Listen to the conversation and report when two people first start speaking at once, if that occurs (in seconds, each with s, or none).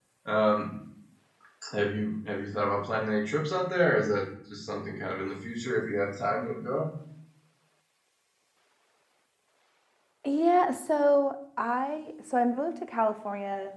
none